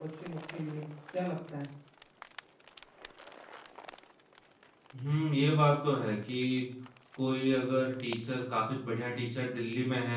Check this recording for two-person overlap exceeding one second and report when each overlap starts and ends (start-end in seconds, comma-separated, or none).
none